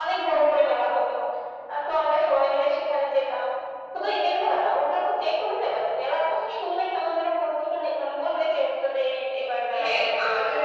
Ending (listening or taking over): taking over